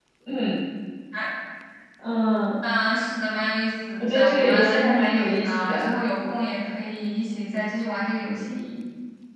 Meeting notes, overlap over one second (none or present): present